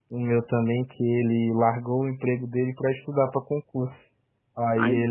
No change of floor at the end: Yes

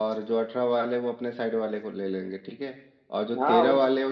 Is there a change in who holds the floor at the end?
No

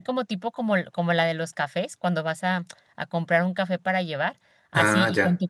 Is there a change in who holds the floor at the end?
No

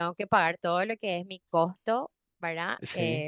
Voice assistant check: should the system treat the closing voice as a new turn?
No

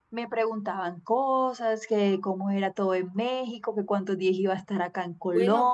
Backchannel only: No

